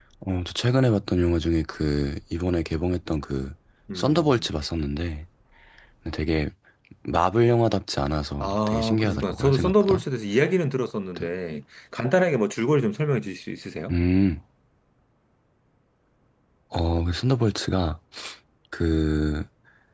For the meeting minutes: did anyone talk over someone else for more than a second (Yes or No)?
Yes